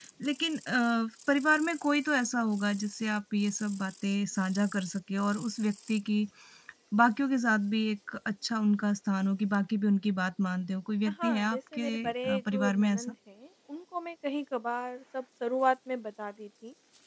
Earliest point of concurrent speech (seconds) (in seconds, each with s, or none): 11.2 s